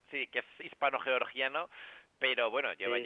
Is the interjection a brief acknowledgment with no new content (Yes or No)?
Yes